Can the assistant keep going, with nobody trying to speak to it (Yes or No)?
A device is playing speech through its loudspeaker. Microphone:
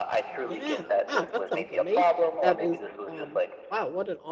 No